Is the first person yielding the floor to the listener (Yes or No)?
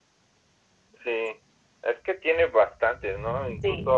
No